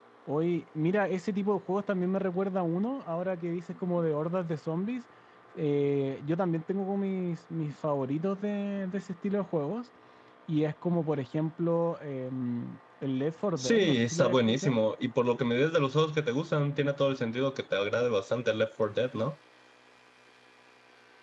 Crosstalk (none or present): present